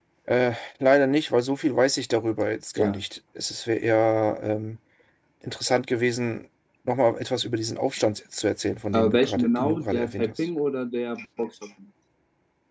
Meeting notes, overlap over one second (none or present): present